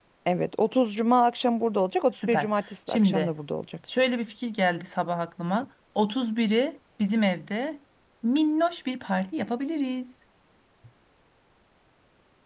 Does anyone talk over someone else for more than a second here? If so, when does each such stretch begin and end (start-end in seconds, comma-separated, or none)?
none